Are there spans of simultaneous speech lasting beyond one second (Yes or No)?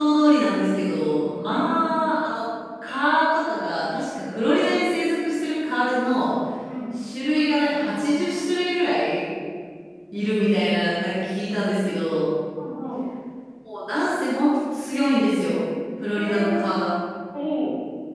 No